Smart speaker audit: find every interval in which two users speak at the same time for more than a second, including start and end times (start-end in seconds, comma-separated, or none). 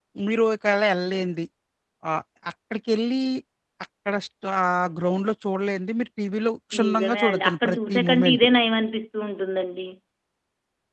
6.8-8.5